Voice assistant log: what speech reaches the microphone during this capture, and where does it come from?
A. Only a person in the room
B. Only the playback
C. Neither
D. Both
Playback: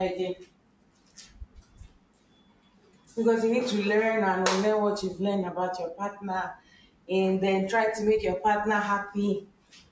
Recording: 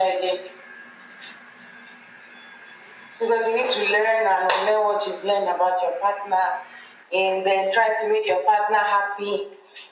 B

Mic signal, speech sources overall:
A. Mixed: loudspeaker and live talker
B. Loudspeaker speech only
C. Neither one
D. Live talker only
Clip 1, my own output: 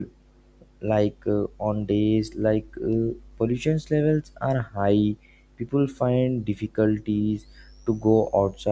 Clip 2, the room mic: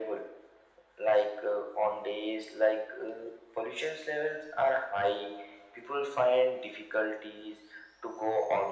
B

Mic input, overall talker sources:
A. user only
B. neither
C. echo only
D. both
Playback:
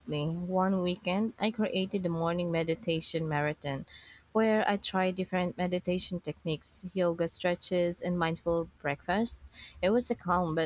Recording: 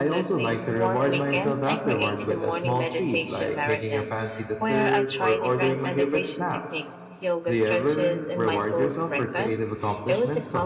D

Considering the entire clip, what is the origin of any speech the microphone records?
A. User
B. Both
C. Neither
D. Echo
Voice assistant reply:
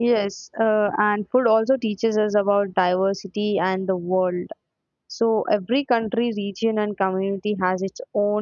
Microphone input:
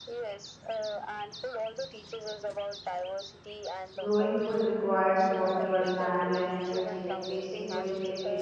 B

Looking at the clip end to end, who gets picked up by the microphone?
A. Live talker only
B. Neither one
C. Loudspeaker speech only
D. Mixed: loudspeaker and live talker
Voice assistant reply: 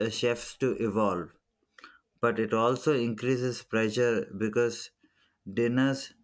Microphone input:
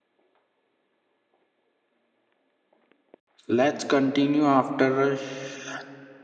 A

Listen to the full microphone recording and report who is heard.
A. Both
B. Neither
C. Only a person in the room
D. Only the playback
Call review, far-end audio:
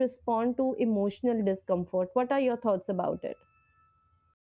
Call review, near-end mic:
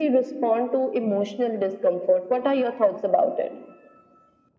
D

